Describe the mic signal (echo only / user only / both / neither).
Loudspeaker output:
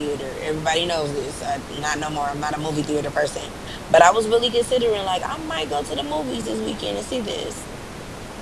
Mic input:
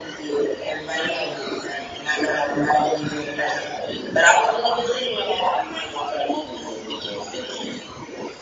echo only